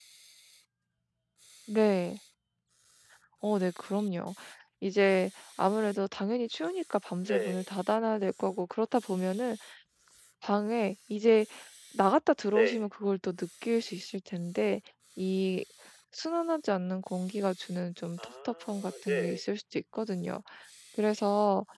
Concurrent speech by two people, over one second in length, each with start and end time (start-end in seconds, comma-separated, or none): 18.2-19.5